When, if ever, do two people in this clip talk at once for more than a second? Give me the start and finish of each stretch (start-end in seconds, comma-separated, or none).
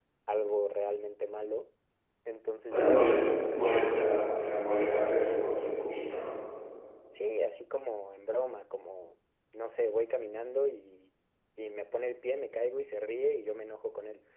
2.7-4.2